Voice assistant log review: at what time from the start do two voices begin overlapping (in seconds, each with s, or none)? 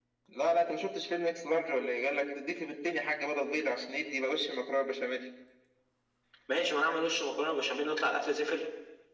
none